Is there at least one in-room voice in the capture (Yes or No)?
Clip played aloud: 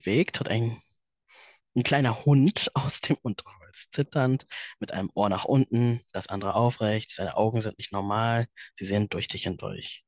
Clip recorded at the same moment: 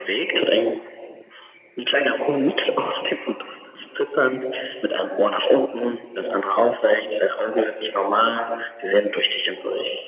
No